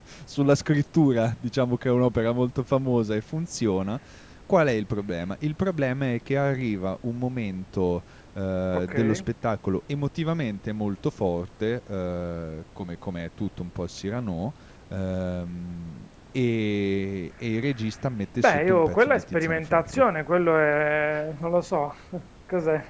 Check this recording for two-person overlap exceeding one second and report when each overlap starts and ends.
18.4-20.0

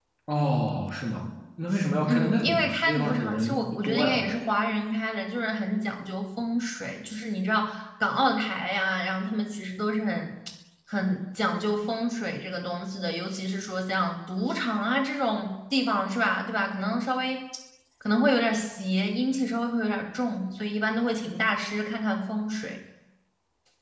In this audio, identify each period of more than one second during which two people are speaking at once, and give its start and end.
2.0-4.3

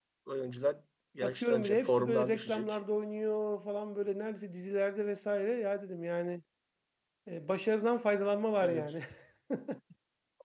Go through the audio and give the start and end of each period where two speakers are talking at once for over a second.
1.2-2.8

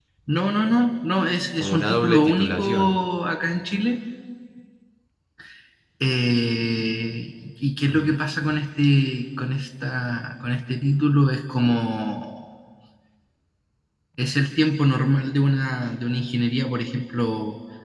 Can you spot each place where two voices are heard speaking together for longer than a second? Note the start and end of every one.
1.6-2.9

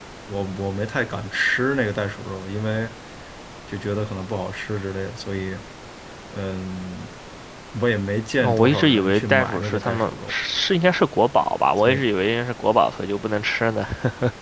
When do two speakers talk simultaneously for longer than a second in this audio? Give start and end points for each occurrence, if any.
8.4-10.3

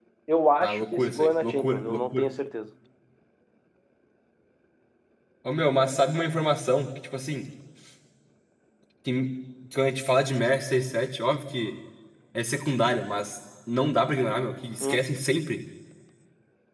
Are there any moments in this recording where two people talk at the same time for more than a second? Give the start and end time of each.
0.6-2.3

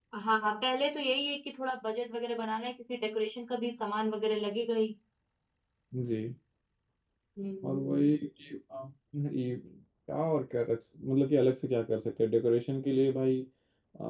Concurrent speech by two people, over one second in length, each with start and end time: none

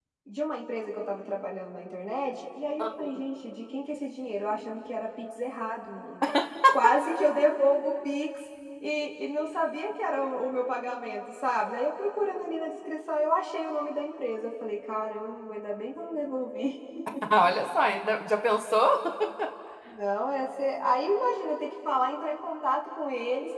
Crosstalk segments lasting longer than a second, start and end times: none

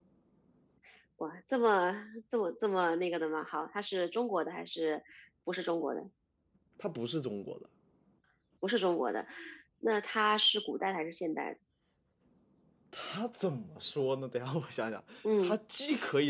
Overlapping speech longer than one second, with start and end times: none

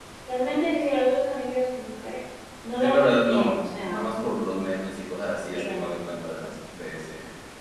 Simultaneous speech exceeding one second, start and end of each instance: 2.7-4.0

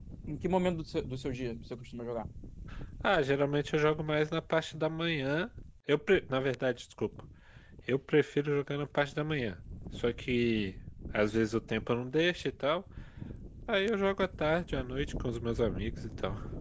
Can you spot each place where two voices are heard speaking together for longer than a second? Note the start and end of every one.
none

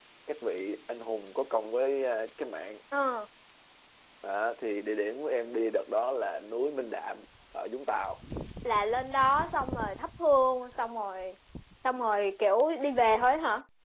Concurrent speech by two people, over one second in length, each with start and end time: none

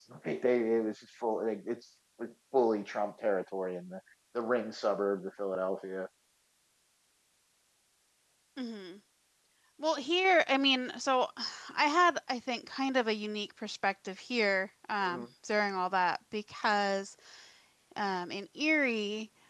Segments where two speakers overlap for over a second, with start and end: none

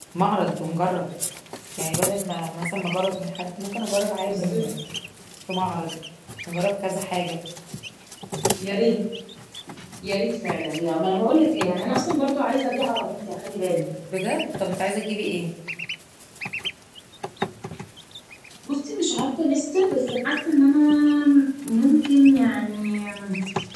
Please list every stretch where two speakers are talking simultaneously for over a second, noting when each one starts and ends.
none

